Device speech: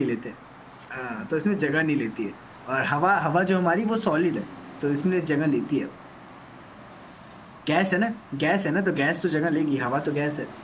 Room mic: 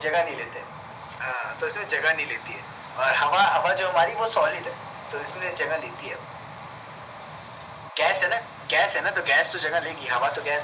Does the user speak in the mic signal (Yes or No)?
No